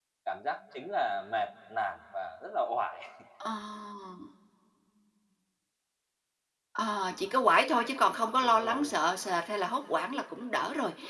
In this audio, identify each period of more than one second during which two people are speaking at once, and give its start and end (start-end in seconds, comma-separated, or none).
none